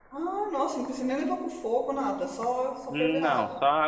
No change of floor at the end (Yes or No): No